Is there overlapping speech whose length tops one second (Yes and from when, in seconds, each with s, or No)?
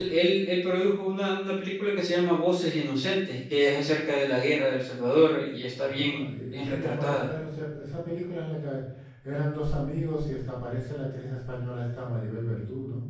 Yes, from 5.8 s